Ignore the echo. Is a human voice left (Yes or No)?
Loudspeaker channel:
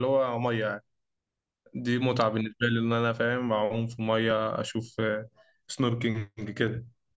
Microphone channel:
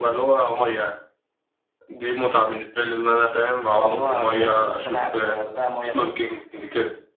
Yes